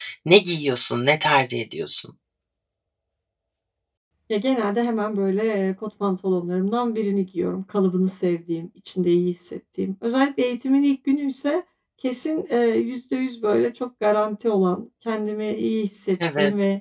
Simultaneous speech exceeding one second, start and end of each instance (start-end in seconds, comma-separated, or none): none